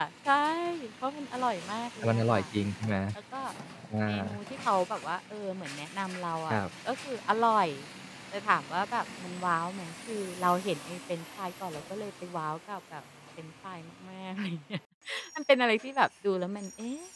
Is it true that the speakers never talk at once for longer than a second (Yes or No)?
Yes